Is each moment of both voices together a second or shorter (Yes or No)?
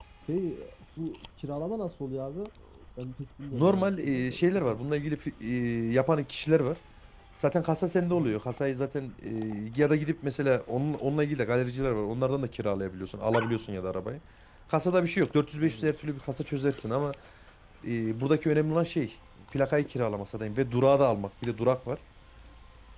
No